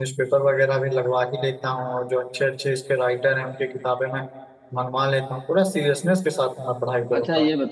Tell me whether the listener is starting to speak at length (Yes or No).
Yes